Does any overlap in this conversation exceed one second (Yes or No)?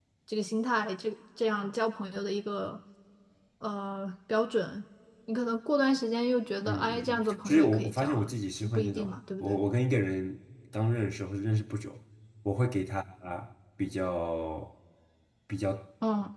Yes